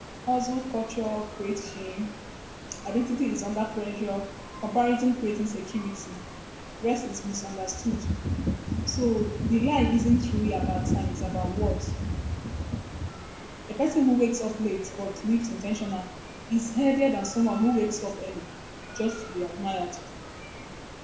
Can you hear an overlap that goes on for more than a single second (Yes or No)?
No